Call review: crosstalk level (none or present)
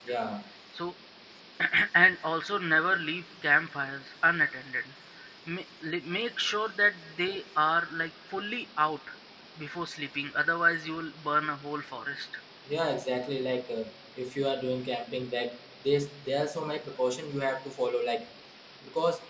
none